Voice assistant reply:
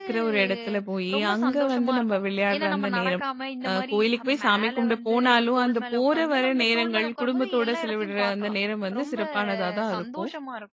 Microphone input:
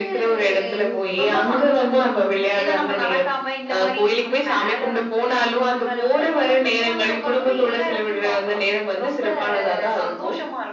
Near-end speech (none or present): present